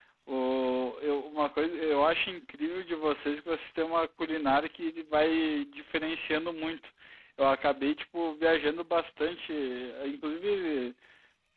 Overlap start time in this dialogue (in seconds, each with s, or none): none